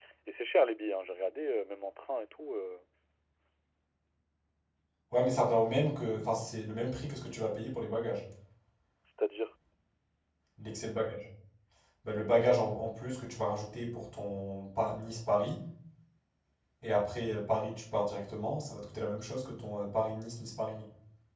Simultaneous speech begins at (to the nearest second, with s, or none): none